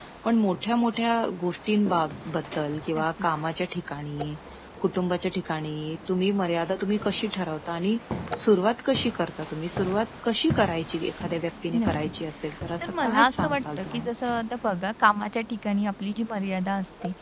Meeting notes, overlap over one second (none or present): present